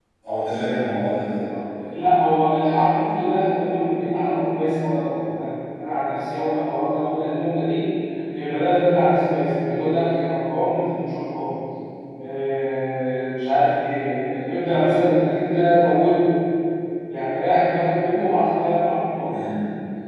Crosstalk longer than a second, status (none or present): none